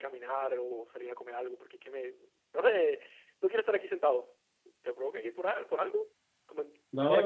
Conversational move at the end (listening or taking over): taking over